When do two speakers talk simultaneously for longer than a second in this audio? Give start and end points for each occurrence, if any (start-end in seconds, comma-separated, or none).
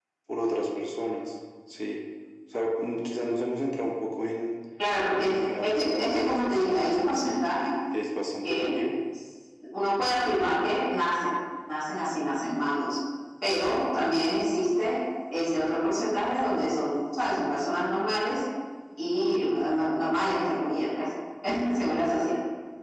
5.2-7.4